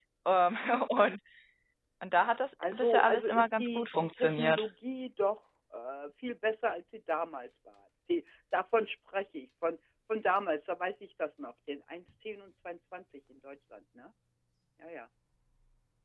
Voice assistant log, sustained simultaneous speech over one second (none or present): present